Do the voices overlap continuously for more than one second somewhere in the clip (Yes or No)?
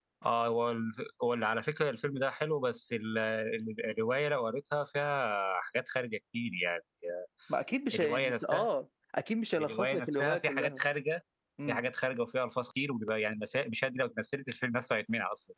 Yes